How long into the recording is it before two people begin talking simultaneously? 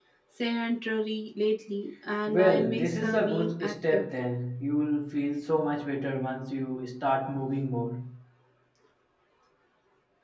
2.3 s

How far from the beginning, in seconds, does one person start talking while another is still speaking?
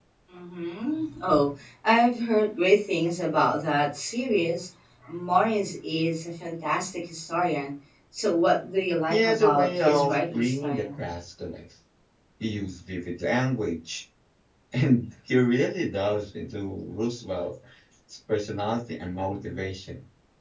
9.1 s

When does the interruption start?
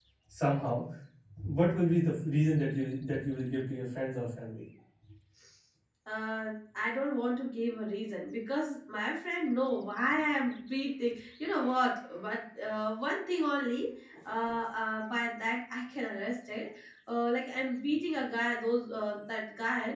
none

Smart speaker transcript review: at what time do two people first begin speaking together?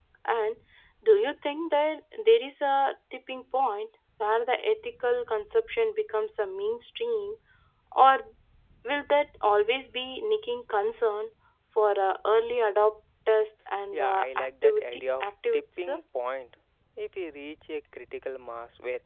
13.9 s

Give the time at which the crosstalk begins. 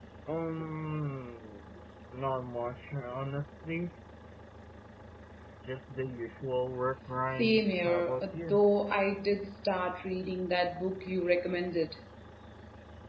7.3 s

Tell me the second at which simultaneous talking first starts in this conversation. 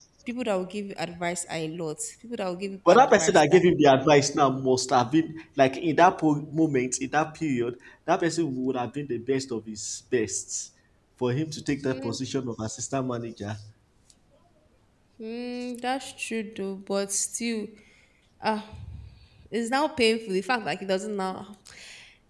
2.9 s

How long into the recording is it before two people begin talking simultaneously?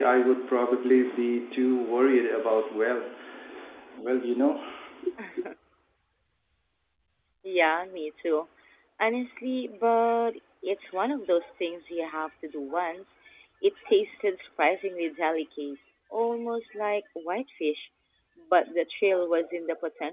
none

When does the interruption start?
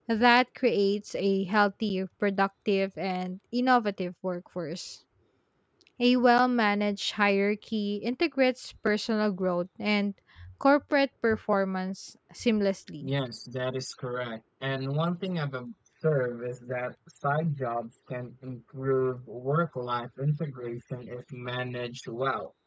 none

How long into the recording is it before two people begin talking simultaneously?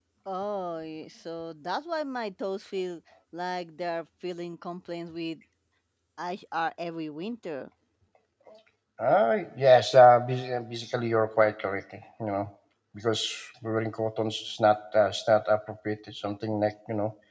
none

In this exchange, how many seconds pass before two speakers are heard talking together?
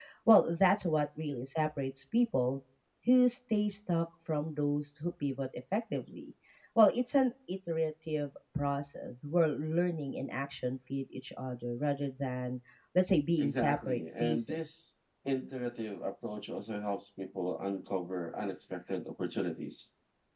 13.4 s

